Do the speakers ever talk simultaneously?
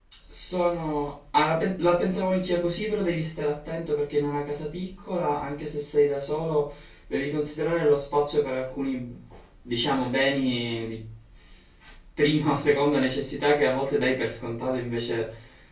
No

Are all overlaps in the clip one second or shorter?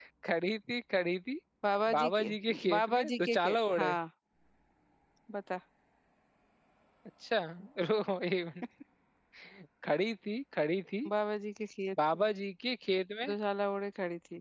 No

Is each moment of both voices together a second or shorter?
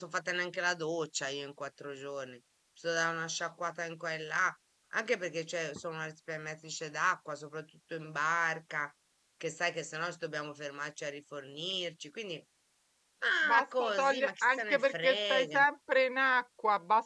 No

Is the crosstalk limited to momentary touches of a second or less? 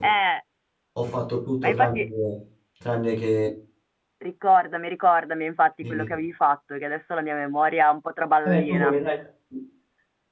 Yes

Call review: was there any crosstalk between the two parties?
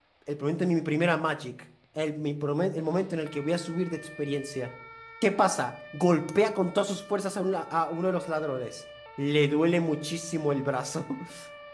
No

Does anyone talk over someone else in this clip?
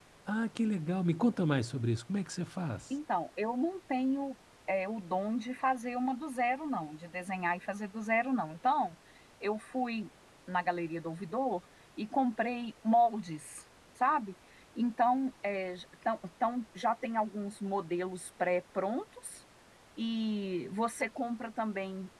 No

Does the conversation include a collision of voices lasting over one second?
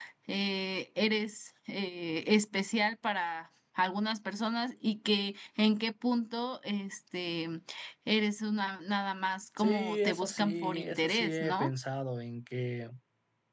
Yes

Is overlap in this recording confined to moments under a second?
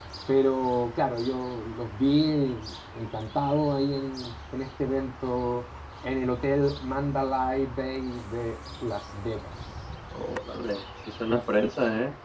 Yes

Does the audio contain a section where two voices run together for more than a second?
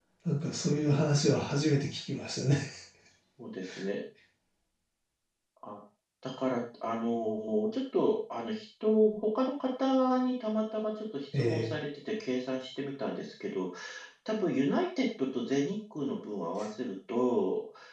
No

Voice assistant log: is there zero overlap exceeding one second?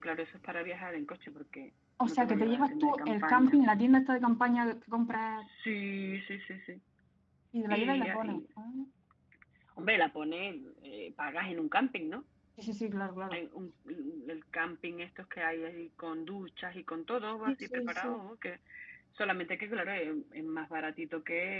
No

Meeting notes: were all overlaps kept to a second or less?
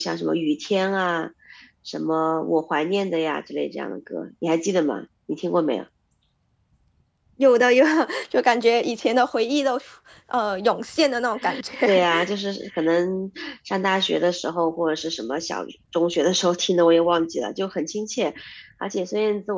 Yes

